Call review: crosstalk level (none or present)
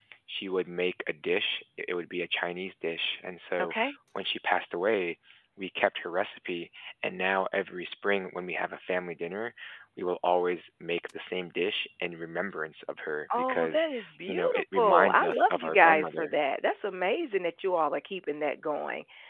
present